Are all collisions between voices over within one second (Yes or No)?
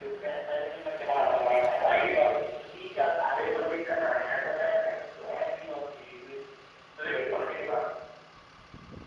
No